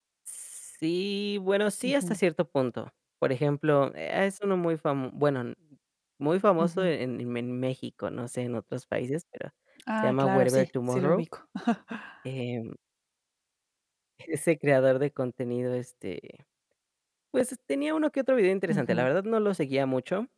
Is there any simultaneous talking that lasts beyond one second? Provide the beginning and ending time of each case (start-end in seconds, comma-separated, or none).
10.0-11.2